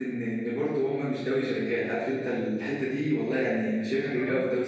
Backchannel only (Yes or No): Yes